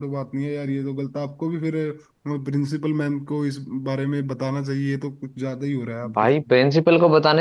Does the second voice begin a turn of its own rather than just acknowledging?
Yes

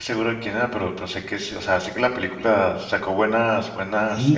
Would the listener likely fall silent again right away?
No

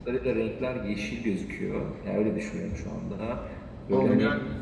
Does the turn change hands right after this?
Yes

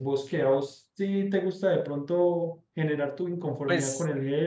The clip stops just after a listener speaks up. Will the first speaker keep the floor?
No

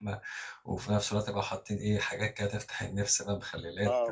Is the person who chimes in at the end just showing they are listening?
No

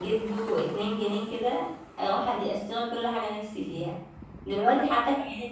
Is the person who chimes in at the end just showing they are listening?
Yes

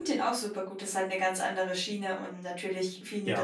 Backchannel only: Yes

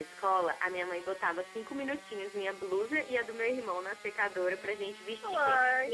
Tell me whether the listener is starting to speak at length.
Yes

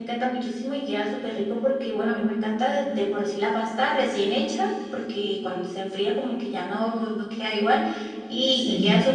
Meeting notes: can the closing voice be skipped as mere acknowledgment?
Yes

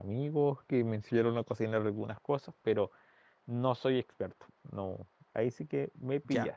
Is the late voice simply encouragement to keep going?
No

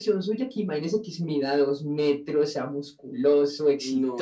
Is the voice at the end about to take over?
Yes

